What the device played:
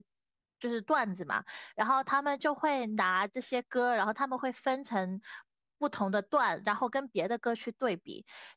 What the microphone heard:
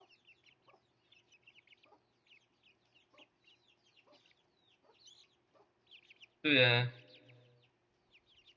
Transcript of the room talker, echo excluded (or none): 对啊，